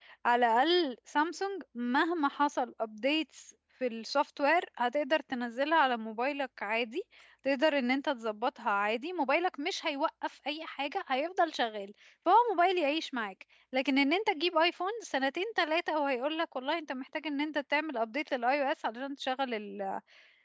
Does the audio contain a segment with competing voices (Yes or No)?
No